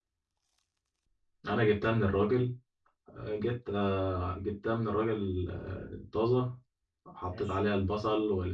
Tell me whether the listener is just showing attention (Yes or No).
Yes